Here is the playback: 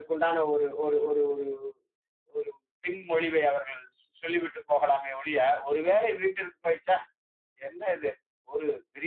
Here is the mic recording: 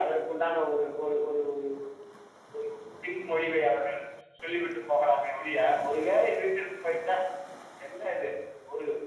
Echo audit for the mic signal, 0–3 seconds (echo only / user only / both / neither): echo only